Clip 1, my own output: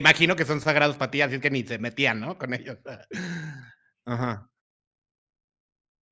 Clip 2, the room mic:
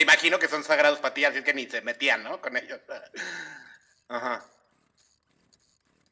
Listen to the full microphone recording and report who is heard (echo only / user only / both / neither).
echo only